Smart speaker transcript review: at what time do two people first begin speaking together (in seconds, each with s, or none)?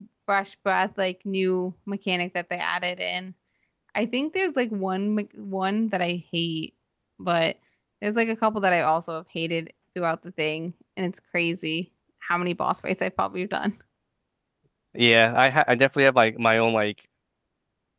none